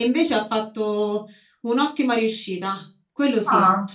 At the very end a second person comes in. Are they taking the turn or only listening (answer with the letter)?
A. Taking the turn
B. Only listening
A